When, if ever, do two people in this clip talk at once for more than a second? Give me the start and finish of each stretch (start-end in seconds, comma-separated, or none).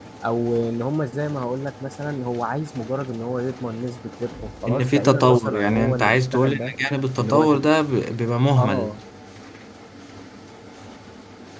4.7-6.7